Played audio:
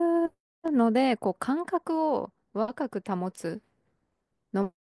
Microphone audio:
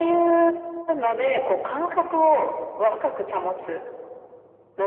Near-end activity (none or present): none